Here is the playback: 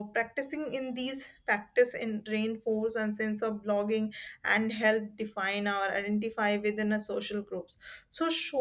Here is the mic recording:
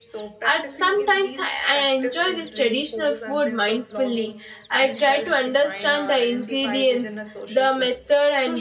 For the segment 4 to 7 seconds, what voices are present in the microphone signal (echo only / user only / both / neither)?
both